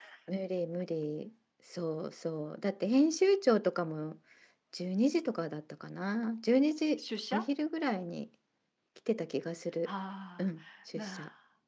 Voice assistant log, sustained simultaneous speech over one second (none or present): none